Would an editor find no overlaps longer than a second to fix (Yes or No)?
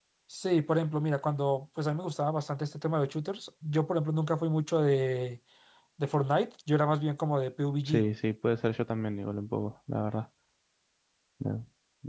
Yes